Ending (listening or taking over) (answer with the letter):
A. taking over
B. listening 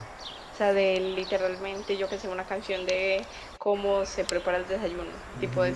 A